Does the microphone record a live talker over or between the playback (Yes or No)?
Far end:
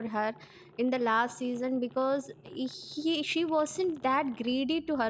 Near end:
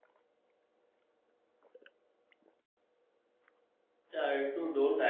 Yes